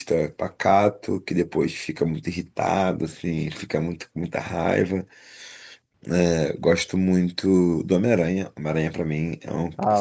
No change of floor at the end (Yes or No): No